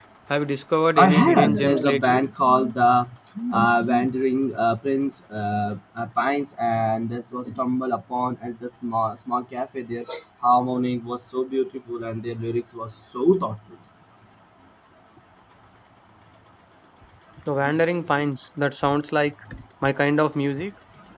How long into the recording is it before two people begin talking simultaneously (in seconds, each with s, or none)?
1.0 s